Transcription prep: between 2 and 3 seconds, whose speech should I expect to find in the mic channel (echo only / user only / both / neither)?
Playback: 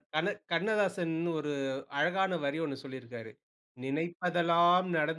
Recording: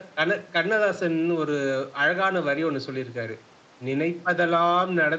echo only